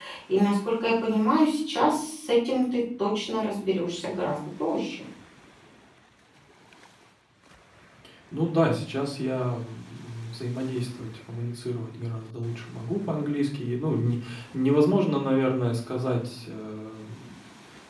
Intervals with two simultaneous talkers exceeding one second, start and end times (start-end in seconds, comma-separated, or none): none